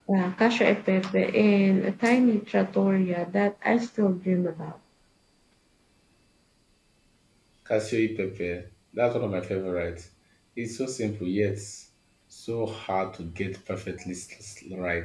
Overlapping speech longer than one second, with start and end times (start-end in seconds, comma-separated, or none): none